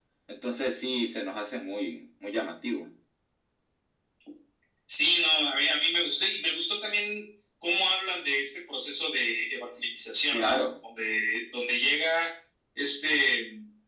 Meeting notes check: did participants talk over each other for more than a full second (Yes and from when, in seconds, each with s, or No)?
No